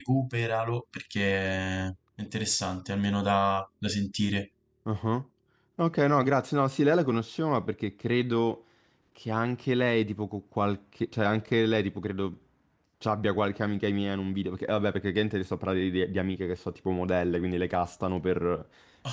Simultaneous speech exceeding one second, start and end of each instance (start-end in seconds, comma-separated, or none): none